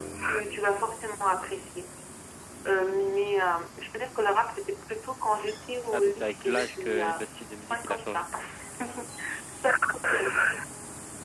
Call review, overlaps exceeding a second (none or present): present